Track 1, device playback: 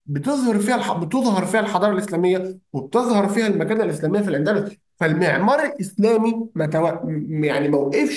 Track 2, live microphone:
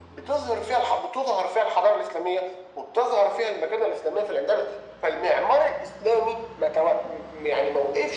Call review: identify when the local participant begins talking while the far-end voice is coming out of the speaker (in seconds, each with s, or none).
none